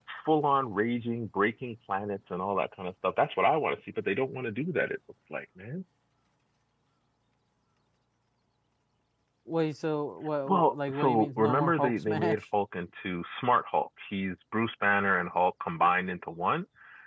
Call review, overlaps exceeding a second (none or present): present